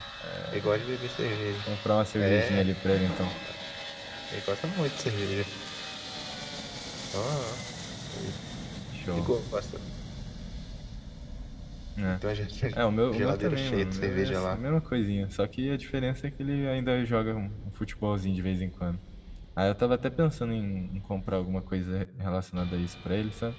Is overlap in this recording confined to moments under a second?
No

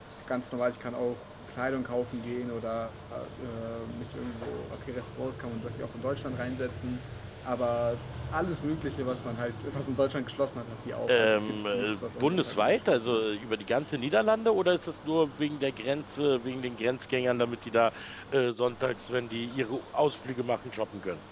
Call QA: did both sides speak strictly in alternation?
No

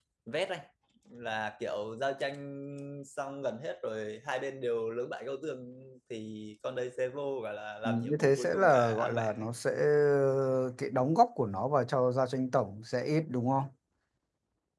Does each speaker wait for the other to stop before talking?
No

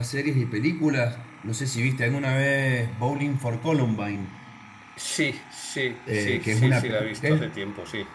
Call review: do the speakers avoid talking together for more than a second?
No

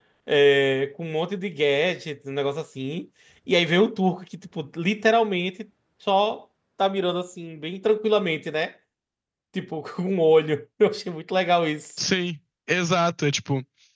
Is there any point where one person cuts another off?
No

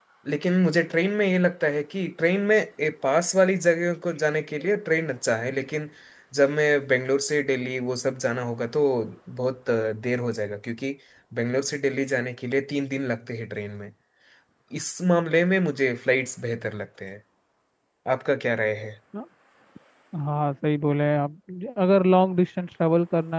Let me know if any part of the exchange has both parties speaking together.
No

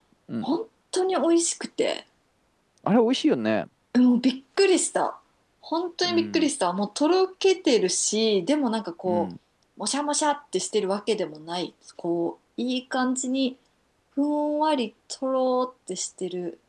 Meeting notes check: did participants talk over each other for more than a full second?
No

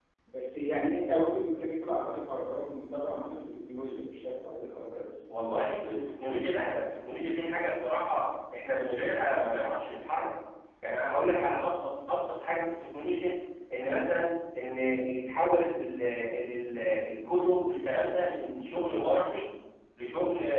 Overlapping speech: No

